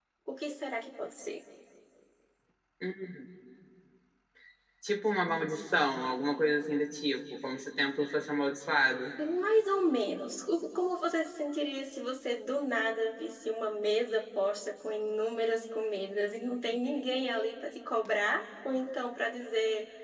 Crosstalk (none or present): none